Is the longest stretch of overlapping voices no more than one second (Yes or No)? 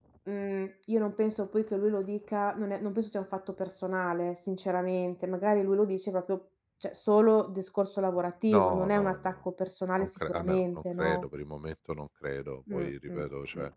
No